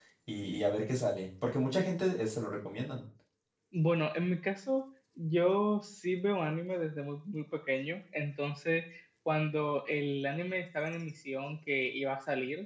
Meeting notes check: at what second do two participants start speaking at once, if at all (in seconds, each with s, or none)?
none